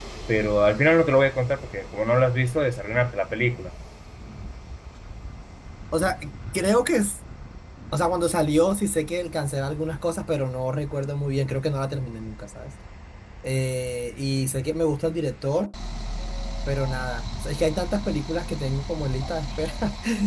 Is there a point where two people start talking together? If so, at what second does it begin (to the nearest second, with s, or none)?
none